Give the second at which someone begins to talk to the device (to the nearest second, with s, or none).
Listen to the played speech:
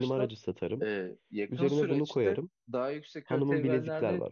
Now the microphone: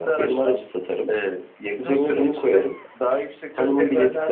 none